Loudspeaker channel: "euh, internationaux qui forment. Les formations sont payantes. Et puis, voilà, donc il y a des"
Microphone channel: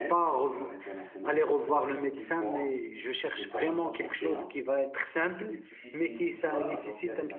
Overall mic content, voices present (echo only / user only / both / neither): both